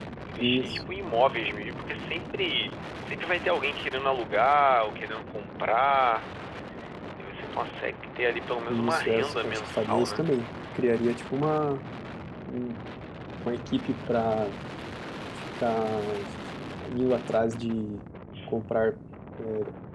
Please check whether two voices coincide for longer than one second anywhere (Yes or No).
Yes